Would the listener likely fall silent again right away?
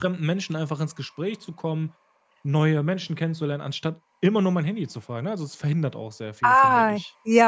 No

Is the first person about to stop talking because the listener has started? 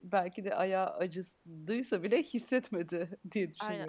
Yes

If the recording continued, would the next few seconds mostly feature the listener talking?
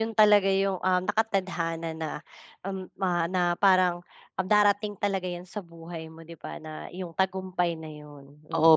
Yes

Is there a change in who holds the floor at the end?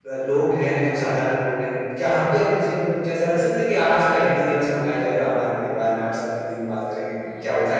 Yes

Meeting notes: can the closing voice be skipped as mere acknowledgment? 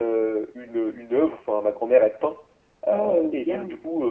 Yes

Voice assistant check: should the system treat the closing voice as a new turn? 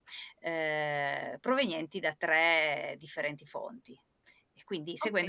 Yes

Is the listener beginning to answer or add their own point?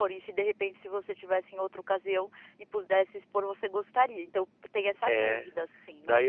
Yes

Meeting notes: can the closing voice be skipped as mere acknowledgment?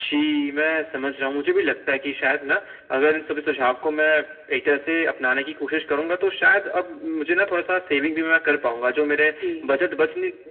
Yes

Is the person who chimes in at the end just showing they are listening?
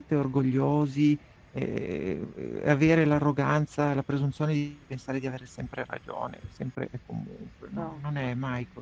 Yes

